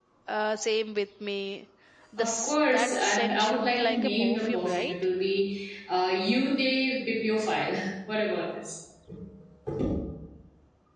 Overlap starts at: 2.2 s

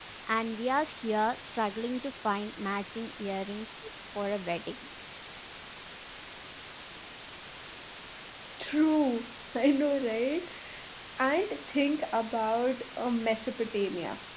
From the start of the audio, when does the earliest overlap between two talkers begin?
none

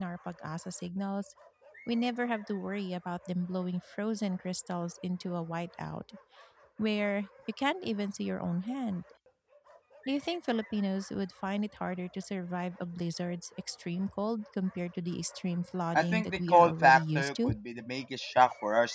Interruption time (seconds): 15.9 s

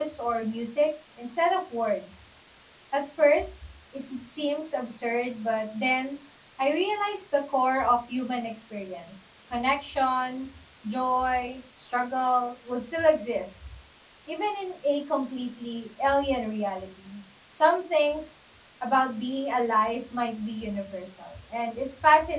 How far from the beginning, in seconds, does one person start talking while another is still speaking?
none

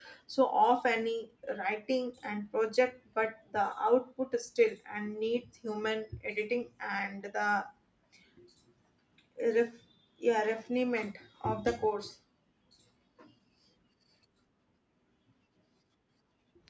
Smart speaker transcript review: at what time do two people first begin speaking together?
none

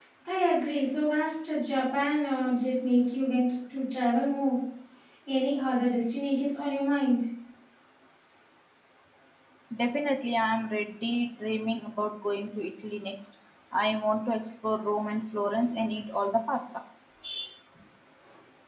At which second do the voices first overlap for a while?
none

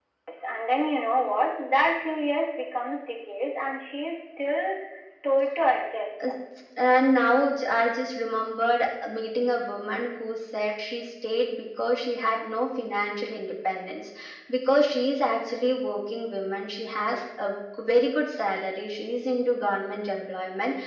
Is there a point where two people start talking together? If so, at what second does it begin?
none

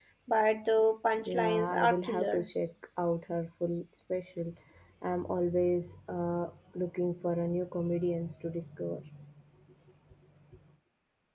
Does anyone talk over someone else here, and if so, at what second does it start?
1.2 s

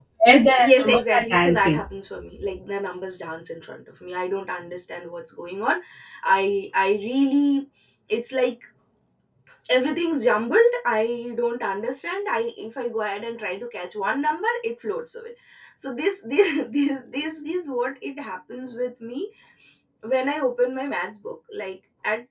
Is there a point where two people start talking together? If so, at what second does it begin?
0.6 s

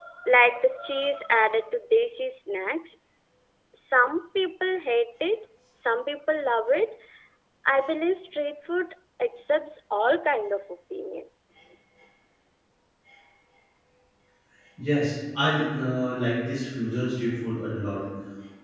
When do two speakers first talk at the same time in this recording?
none

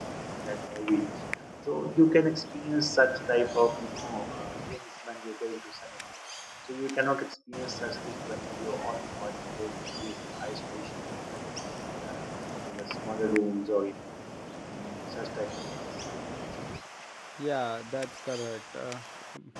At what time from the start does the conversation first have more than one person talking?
none

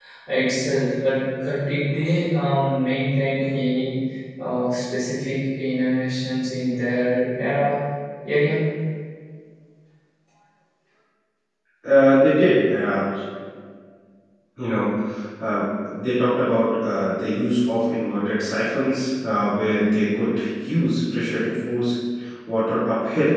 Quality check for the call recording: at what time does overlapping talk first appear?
none

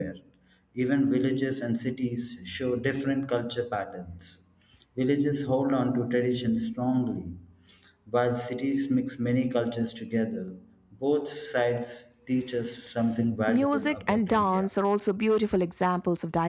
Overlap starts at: 13.5 s

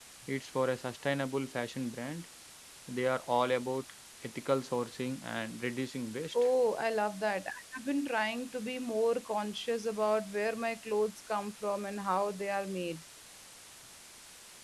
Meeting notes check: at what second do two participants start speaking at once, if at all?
none

